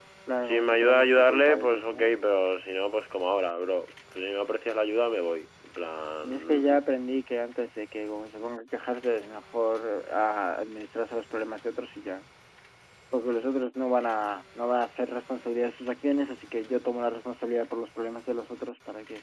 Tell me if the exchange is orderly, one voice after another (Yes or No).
No